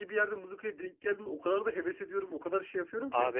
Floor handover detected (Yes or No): Yes